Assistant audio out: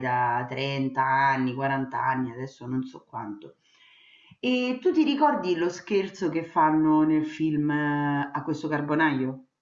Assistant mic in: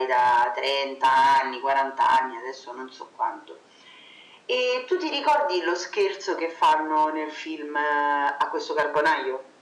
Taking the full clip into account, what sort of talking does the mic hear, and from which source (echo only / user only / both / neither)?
echo only